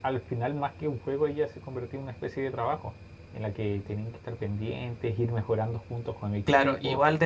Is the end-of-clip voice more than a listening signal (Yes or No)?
Yes